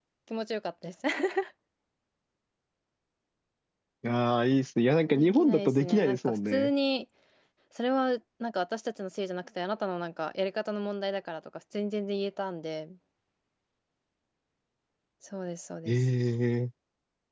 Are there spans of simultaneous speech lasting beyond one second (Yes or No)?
Yes